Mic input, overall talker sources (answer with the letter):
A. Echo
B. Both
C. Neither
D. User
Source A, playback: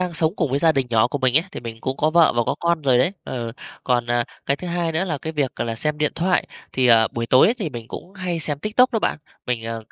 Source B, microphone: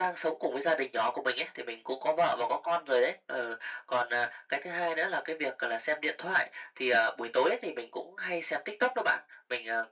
A